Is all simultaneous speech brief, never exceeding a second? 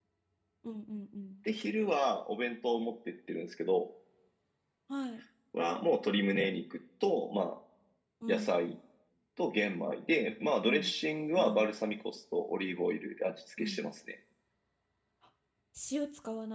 Yes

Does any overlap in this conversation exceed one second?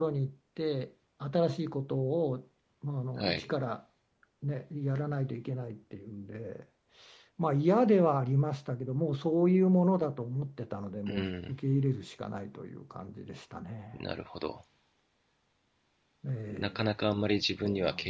No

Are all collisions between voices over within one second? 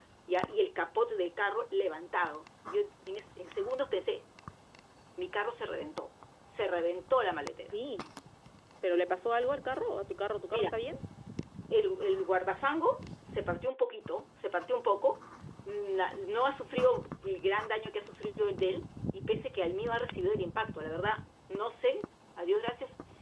Yes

